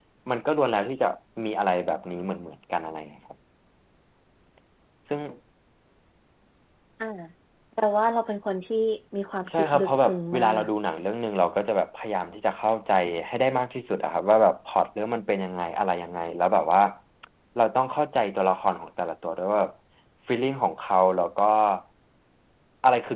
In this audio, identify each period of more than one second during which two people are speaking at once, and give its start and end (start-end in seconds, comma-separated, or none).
9.5-10.7